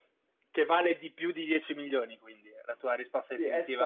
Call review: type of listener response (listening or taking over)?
taking over